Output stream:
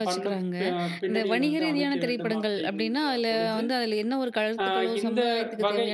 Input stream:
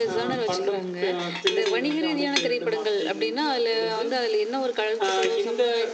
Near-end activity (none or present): none